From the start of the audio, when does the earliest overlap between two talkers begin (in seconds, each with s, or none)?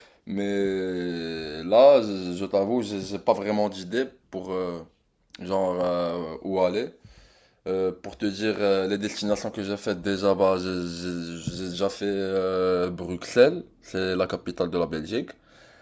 none